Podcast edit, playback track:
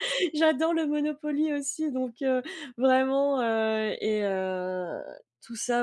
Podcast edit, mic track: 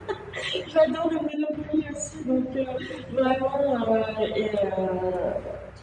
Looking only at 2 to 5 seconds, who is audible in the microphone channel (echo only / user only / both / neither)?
echo only